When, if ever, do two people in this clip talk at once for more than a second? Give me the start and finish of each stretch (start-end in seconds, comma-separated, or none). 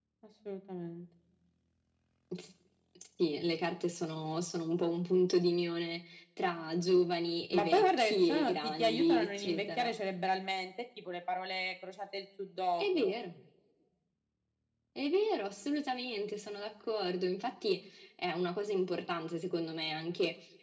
7.5-9.9